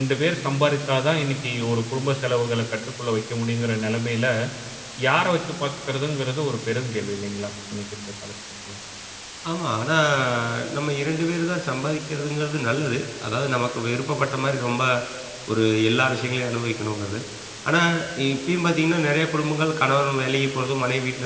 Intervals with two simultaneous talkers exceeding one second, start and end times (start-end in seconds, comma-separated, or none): none